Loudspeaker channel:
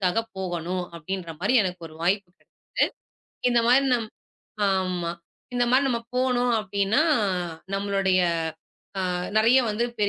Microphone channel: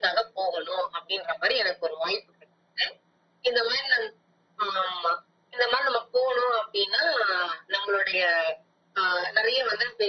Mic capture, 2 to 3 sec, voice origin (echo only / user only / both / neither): echo only